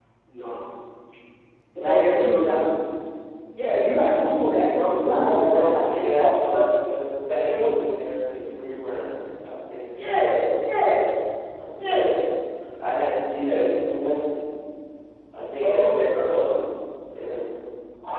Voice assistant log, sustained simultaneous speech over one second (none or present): present